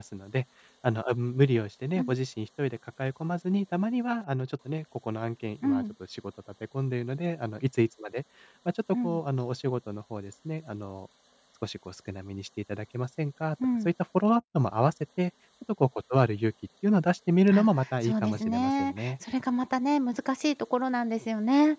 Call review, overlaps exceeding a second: present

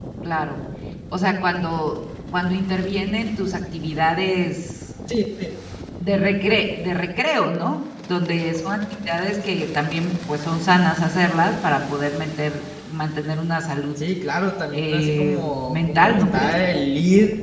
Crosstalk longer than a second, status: present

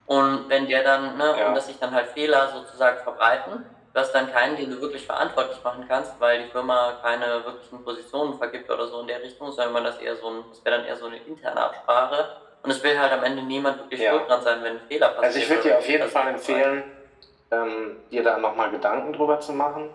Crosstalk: present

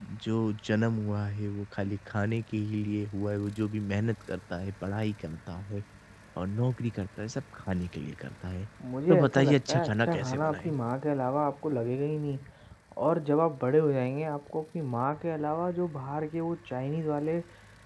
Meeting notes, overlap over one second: present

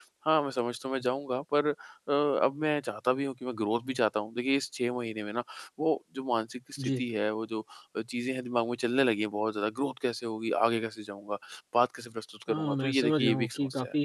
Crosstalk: present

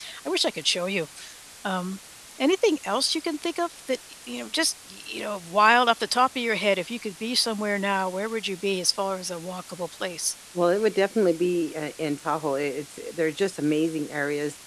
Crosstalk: none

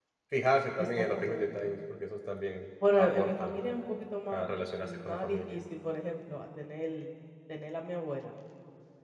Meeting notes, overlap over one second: present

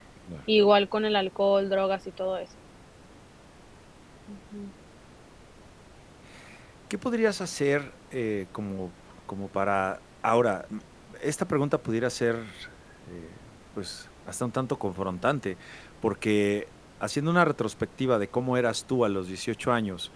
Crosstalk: none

